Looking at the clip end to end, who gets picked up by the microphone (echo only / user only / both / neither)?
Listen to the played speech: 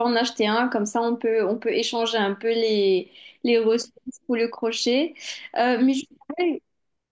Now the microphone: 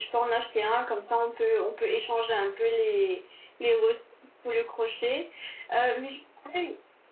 echo only